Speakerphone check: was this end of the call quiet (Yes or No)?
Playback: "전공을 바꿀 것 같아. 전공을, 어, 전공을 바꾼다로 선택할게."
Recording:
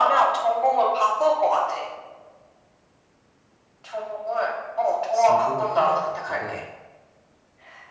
No